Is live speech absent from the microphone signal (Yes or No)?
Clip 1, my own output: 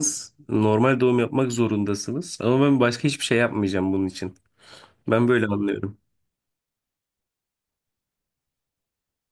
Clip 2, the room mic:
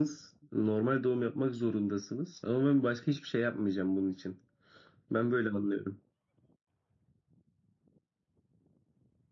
Yes